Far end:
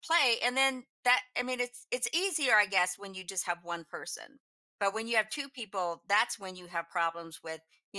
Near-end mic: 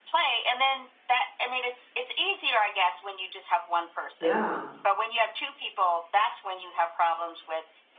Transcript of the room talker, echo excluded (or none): yeah.